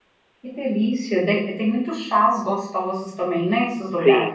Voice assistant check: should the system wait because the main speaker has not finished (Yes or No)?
No